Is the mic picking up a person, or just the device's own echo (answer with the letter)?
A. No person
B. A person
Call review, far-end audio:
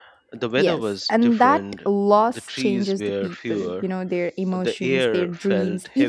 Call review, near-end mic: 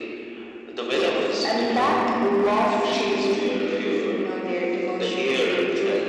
A